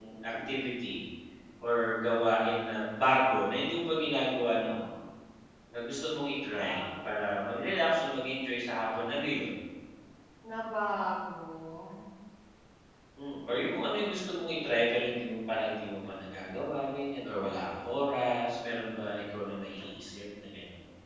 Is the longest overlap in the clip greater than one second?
No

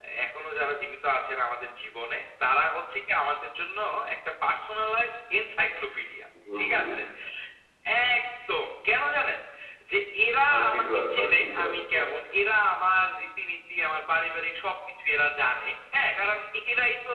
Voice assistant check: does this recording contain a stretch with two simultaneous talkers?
Yes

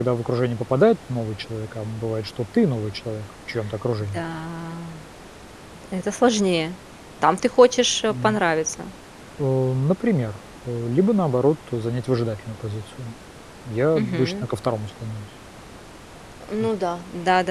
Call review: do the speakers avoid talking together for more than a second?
Yes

